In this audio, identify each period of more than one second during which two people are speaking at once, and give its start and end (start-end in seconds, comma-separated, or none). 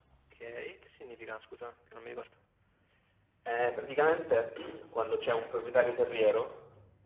none